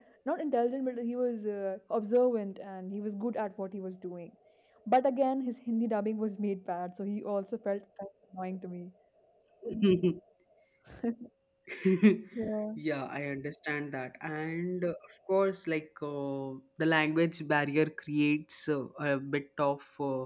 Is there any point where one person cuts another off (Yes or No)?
No